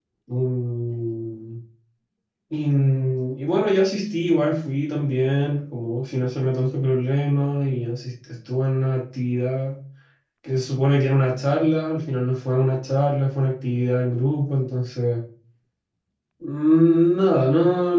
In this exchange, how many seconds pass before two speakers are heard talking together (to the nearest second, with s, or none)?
none